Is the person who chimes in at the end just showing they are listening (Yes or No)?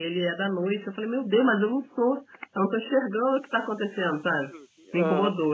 No